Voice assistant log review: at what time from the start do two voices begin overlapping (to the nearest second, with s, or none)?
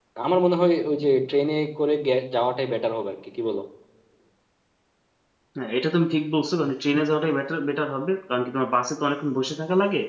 none